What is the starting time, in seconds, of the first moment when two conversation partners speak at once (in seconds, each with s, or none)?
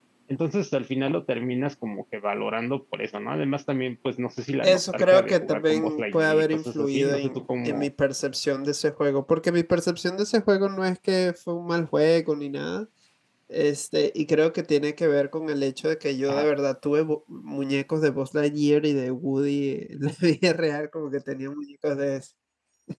4.6 s